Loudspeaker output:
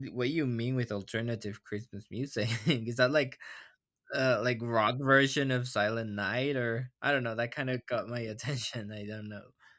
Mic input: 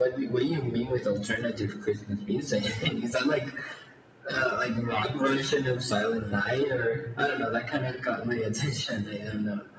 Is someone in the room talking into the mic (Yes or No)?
No